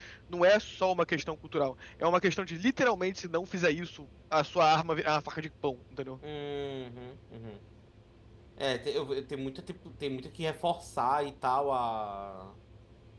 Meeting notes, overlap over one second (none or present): none